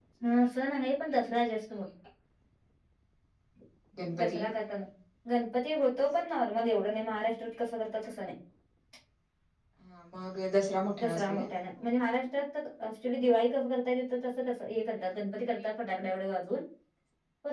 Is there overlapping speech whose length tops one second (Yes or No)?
No